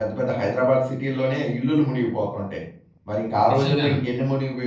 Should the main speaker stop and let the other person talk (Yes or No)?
No